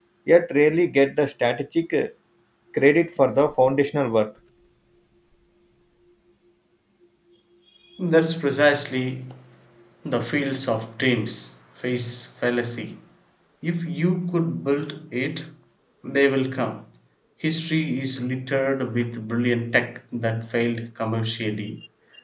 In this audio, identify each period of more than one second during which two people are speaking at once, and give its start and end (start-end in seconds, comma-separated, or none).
none